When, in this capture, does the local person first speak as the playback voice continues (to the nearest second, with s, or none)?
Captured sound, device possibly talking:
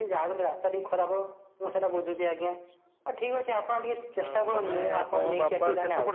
4 s